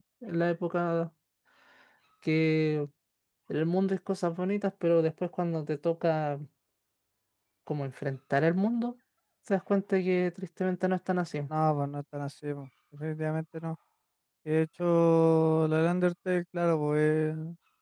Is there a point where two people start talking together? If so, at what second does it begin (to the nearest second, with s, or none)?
none